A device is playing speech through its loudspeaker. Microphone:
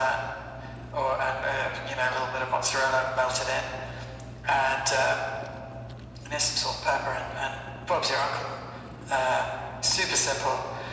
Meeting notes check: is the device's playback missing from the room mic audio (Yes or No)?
No